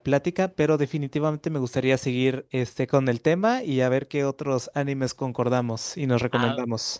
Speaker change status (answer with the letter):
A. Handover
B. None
A